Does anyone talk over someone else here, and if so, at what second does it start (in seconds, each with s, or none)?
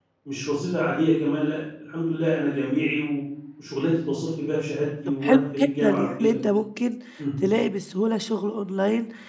5.1 s